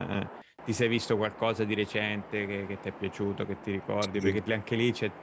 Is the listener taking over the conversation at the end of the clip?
No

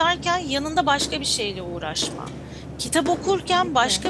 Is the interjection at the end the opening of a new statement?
No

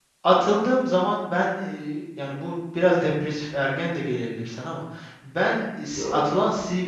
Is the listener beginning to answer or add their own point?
No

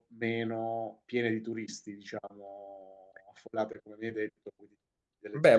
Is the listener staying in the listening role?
No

